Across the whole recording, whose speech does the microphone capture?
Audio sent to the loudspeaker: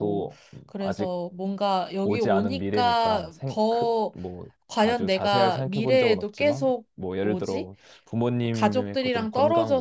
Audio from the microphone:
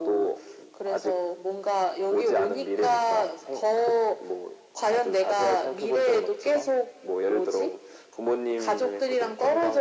echo only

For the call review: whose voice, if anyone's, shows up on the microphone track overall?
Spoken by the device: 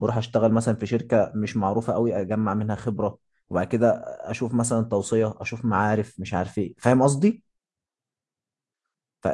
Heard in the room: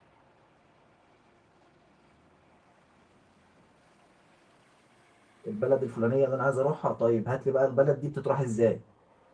user only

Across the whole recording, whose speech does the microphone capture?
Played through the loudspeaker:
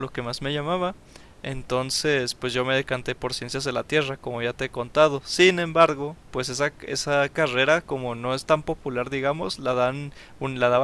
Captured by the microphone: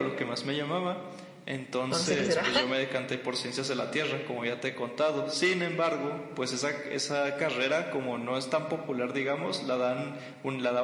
both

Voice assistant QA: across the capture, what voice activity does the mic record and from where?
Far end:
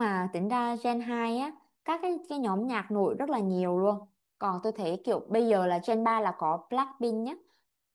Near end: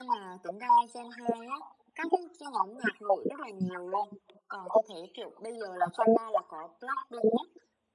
echo only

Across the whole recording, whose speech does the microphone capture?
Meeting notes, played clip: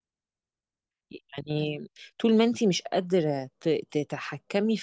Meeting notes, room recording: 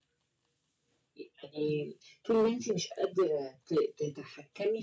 echo only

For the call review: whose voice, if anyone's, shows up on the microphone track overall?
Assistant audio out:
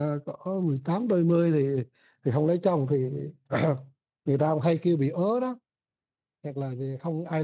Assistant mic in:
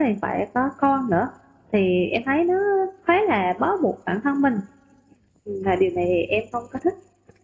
user only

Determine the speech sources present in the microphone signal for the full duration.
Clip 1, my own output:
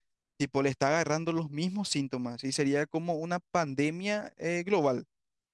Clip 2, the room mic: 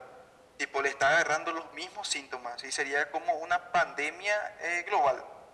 echo only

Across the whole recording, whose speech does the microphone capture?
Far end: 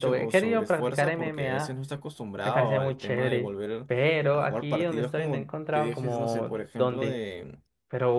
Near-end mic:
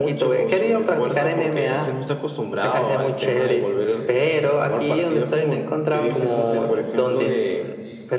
both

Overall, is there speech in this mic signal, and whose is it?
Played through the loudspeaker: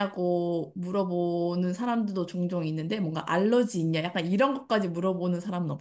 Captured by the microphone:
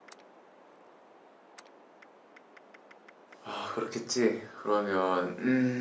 user only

